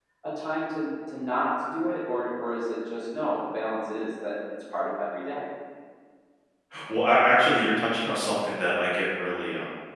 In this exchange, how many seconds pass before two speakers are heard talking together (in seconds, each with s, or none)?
none